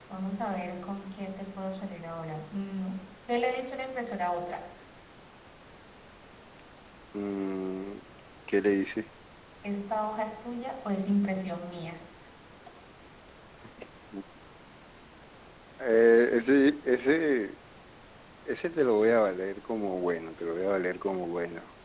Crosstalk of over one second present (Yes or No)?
No